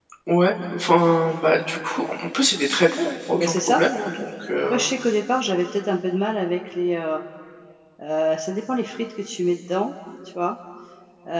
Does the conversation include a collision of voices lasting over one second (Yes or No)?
No